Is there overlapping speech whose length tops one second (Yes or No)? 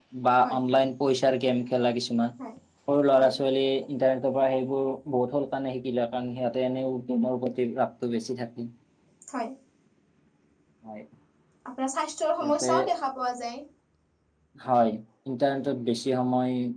No